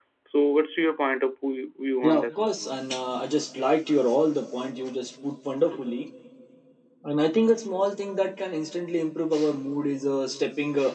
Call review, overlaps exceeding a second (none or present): none